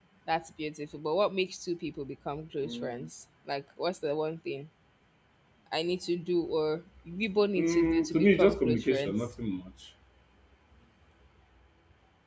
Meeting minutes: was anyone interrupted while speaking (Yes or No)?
Yes